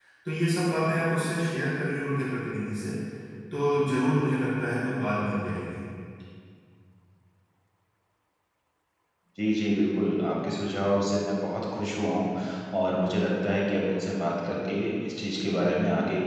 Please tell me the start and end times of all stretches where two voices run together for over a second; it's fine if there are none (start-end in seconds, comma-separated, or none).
none